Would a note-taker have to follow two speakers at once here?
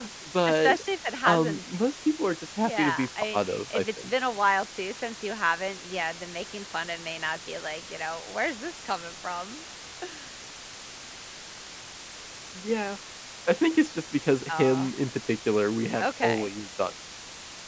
Yes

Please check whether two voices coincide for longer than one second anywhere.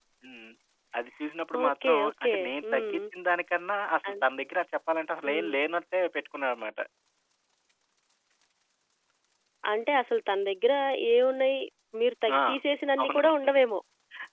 Yes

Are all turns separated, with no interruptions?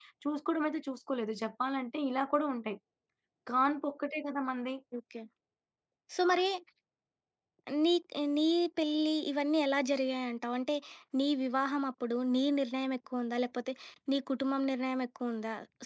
Yes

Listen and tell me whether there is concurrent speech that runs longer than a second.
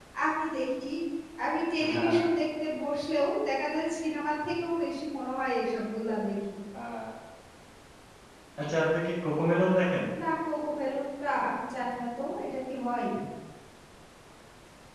No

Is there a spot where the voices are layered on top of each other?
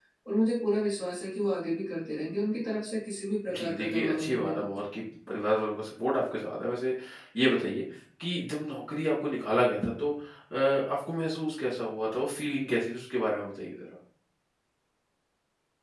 Yes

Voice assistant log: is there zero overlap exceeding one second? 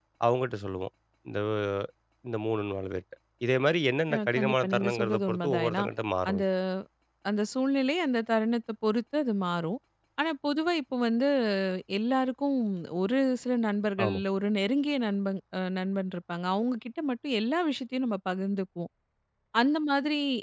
No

